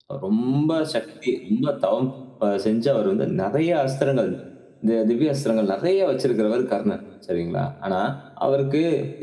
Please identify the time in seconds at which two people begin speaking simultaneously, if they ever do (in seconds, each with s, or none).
none